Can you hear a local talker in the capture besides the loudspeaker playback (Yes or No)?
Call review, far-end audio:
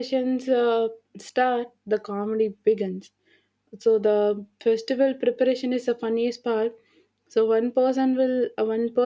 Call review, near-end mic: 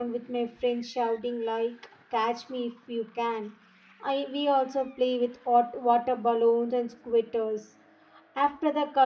Yes